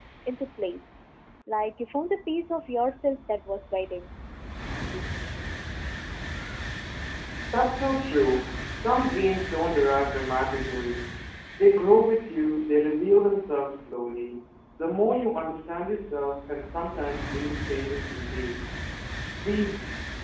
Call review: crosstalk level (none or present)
none